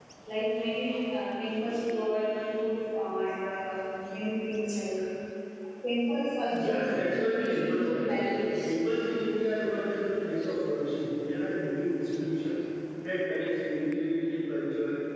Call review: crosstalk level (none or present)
present